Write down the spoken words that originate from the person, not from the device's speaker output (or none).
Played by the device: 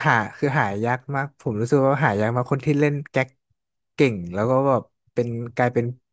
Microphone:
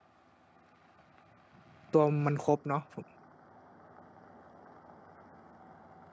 ตัวมันครบเนาะผม